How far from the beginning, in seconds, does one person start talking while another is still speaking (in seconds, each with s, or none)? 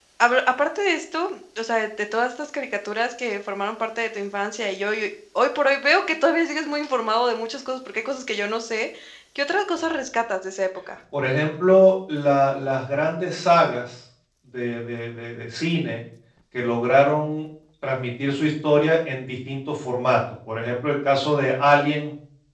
none